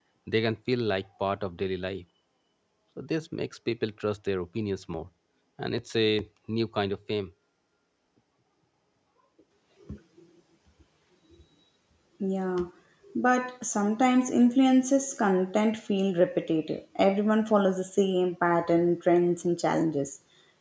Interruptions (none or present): none